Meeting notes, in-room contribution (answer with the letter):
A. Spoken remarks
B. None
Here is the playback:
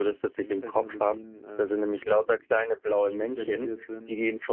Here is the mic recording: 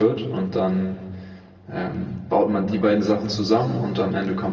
A